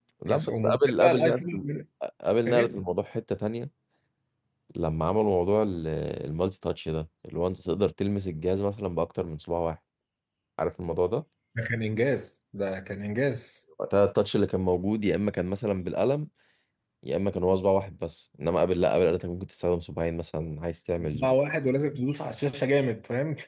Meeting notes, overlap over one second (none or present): present